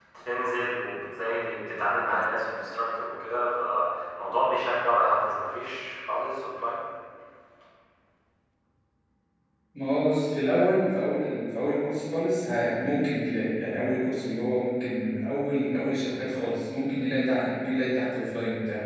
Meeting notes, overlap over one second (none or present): none